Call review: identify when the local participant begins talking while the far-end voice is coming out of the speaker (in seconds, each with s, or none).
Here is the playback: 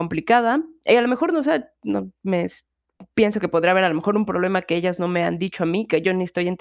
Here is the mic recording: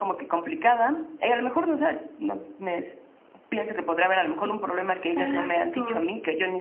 4.4 s